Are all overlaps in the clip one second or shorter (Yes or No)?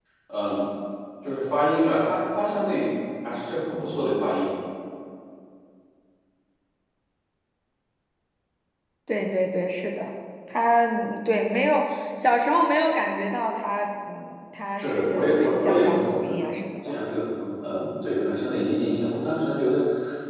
No